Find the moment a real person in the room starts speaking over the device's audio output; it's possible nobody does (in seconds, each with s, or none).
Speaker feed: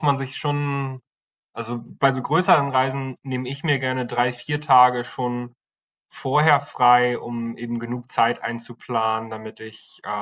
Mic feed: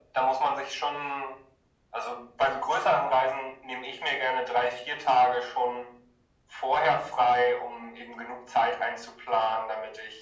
none